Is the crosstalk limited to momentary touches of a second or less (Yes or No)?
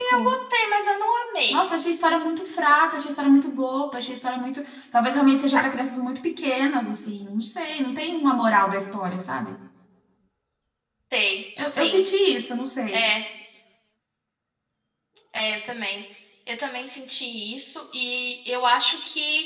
Yes